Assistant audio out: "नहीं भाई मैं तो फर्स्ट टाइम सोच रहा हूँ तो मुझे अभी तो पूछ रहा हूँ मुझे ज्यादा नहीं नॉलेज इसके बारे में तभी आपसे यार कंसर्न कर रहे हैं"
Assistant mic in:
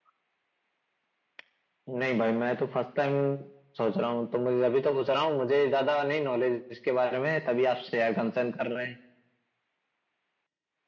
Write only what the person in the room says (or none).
none